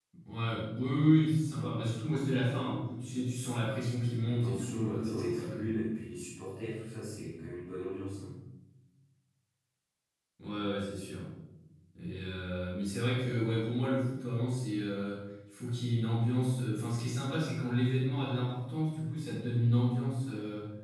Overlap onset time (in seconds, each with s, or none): 4.2 s